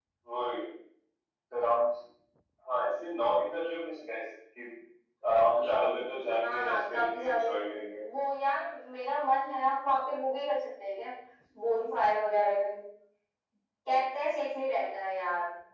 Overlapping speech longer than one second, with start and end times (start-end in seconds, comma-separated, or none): 6.3-7.5